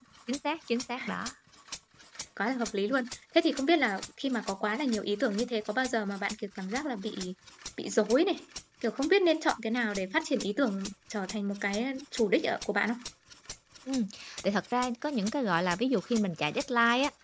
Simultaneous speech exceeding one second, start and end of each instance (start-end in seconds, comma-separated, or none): none